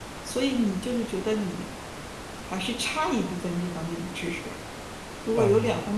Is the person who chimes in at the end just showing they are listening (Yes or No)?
Yes